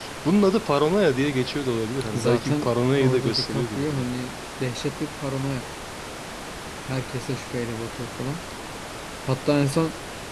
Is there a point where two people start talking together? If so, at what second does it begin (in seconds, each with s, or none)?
2.1 s